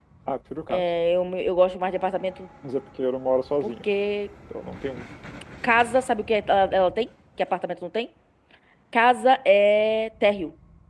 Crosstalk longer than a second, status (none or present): none